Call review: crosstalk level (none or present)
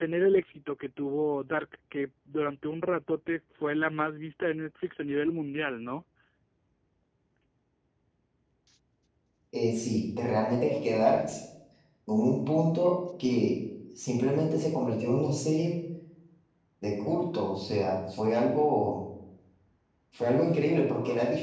none